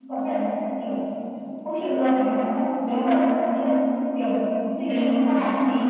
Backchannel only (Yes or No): Yes